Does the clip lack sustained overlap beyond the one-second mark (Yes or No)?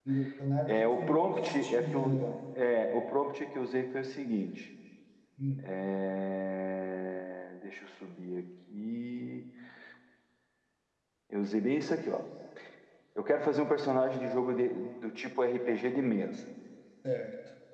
No